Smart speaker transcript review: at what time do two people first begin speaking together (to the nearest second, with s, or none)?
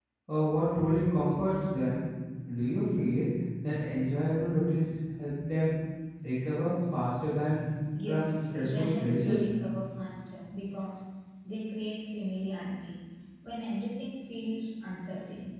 8 s